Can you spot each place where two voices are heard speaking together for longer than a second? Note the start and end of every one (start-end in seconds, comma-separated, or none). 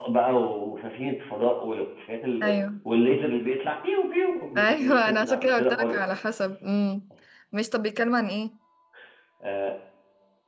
4.6-6.0